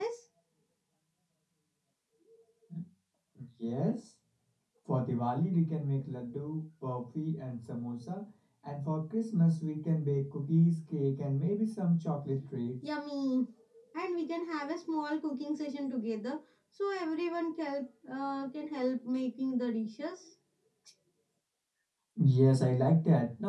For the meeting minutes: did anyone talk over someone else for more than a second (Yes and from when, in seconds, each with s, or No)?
No